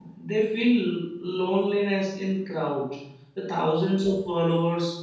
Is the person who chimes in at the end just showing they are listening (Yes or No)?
Yes